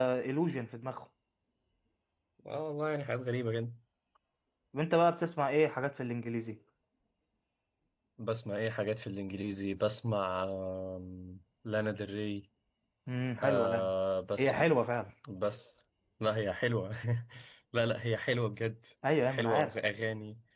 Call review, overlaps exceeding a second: none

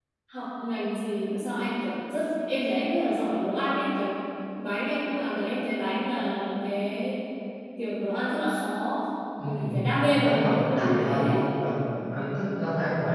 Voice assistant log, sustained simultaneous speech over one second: present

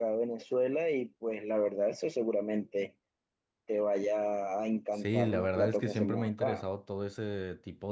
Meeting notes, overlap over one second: present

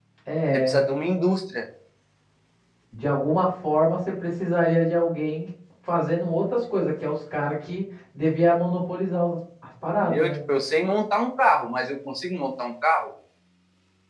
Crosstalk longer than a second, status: none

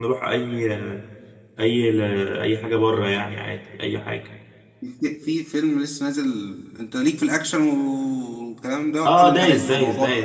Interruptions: present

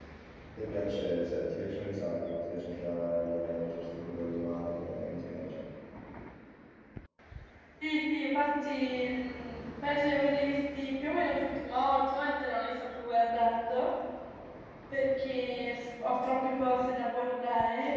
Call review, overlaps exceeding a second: none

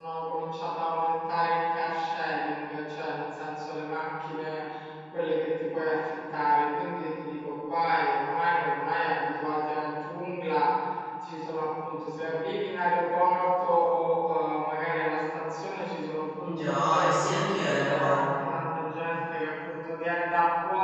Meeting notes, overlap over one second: present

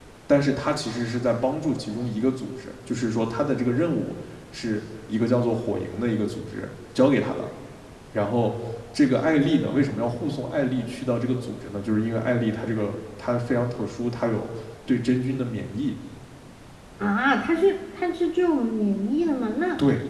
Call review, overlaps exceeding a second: none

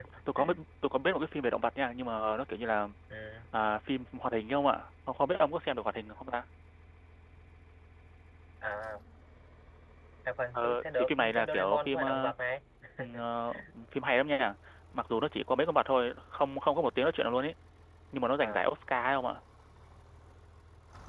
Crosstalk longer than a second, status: present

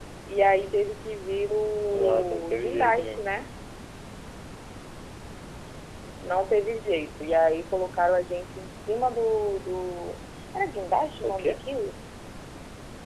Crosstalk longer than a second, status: present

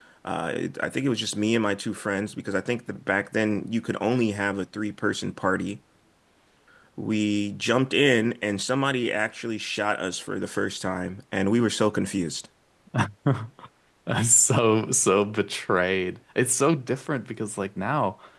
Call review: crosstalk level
none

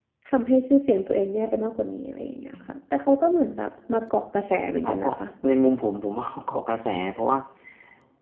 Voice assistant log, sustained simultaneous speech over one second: none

